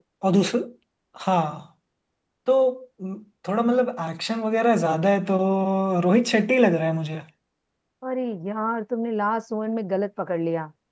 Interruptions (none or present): none